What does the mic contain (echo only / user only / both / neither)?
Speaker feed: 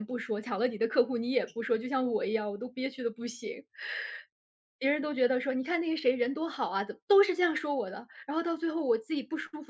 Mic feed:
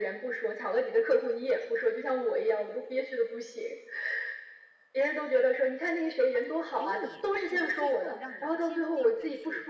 both